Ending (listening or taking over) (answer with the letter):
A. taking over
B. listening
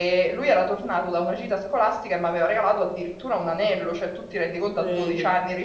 B